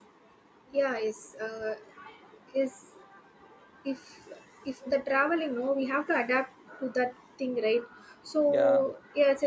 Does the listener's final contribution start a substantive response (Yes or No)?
No